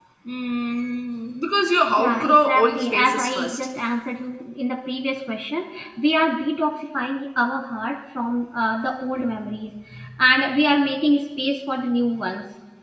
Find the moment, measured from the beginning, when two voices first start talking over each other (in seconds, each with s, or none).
2.0 s